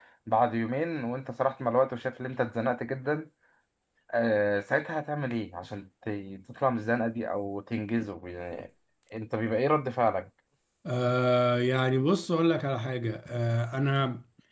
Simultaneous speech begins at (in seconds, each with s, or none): none